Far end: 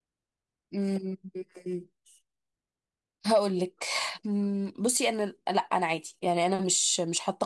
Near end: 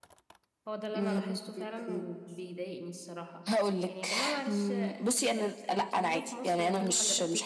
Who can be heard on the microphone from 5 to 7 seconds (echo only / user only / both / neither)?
both